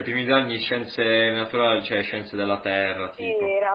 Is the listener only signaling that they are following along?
No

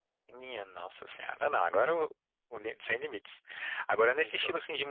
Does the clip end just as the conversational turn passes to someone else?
No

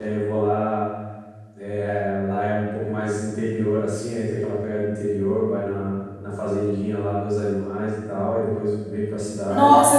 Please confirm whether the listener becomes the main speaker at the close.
Yes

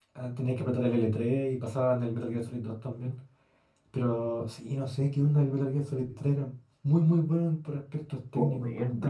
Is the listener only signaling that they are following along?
No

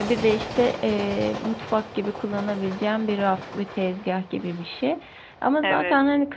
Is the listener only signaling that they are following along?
Yes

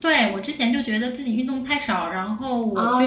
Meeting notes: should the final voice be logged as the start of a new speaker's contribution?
Yes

